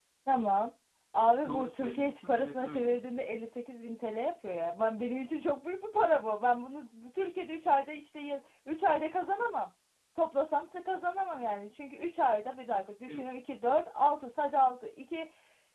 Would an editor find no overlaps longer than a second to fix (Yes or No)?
No